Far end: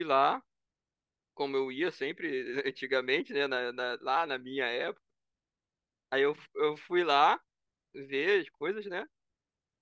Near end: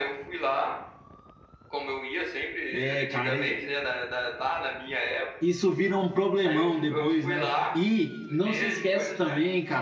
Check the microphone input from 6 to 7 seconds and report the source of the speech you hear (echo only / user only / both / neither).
both